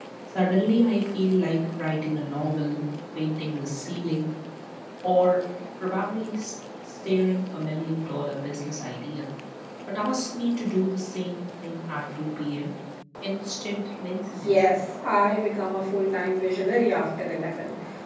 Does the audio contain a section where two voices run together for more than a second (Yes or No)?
No